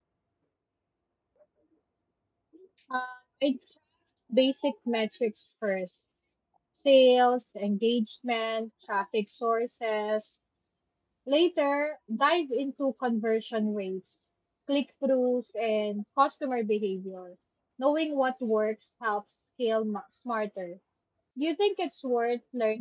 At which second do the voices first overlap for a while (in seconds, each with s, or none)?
none